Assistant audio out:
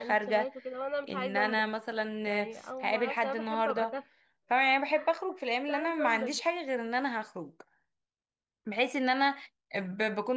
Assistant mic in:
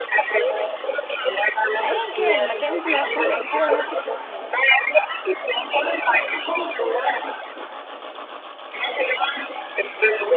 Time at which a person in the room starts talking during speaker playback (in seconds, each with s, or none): 1.8 s